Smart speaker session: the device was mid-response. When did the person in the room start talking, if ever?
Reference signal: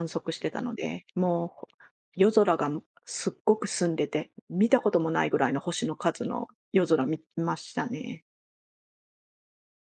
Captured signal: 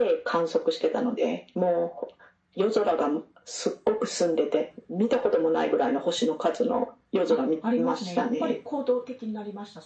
7.3 s

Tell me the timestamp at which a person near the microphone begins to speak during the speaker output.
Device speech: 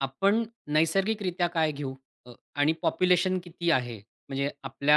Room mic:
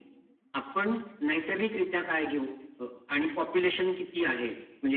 none

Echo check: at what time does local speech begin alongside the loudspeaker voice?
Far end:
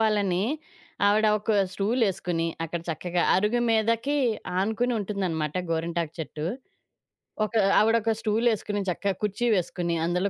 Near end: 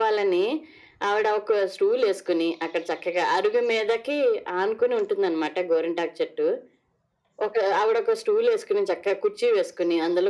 none

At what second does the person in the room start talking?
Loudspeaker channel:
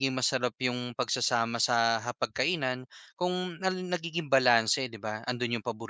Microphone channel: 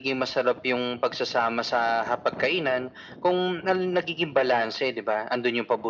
none

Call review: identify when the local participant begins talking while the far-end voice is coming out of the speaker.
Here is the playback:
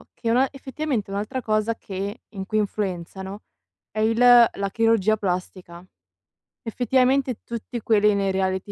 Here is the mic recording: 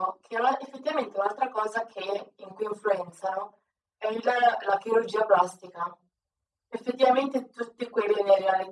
none

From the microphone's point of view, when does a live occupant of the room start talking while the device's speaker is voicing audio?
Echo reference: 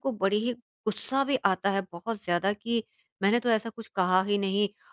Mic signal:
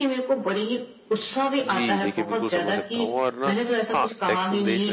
1.6 s

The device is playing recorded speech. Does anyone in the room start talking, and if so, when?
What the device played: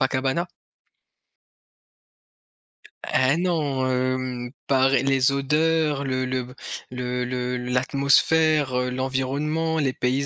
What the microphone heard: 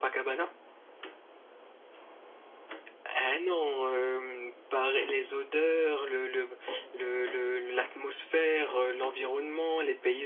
none

